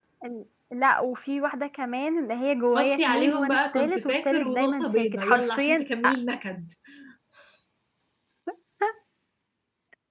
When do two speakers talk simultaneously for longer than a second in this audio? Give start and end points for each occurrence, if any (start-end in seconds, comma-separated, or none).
2.7-6.2